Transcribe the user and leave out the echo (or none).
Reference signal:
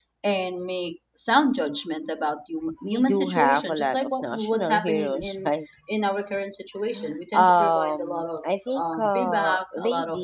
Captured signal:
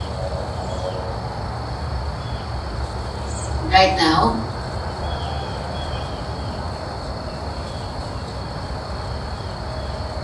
Right now,